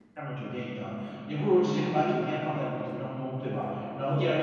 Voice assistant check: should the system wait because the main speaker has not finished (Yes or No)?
Yes